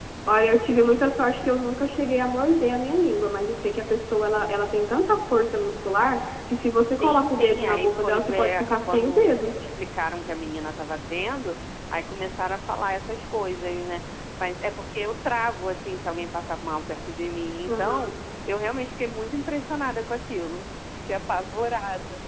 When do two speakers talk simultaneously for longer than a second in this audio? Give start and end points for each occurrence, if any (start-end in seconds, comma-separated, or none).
7.0-9.4